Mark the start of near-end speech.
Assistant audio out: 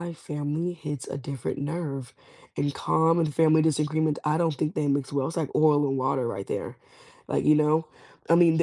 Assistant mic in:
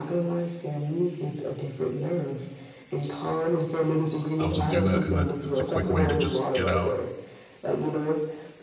4.4 s

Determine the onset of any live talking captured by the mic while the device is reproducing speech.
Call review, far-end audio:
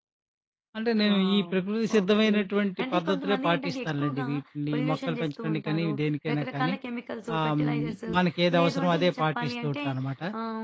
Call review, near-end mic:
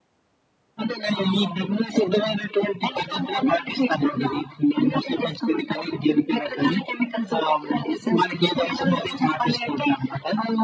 none

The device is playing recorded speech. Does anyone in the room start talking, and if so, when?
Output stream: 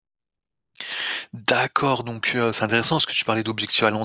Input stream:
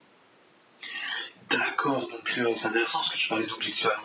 none

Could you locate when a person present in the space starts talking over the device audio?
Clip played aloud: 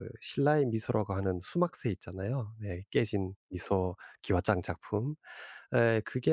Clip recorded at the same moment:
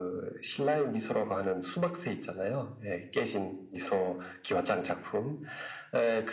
none

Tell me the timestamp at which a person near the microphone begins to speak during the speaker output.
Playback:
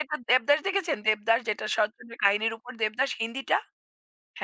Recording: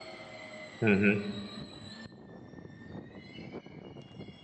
0.8 s

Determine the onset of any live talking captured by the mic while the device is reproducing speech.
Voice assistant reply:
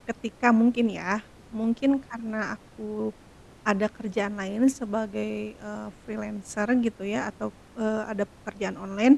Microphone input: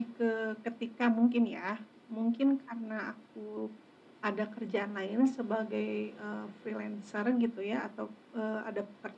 none

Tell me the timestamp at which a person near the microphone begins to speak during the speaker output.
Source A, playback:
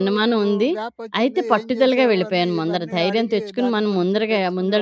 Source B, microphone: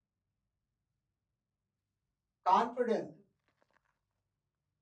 2.5 s

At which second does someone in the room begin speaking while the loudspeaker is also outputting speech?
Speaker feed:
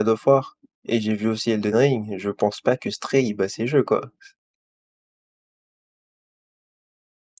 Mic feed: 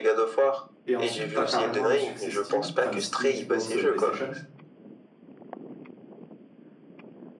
0.9 s

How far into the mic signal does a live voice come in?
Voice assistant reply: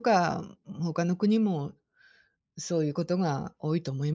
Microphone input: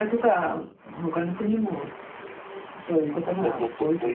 3.2 s

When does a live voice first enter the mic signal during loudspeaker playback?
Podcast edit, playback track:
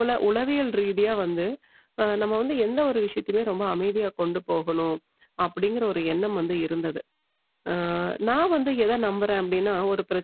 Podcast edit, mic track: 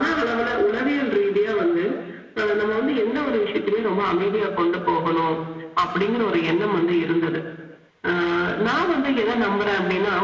none

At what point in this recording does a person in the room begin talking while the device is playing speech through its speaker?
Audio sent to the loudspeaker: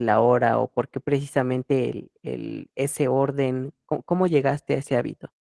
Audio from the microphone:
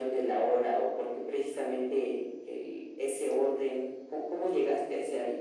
none

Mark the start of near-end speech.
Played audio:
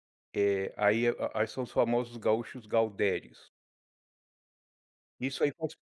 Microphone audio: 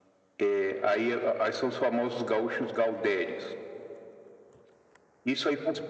none

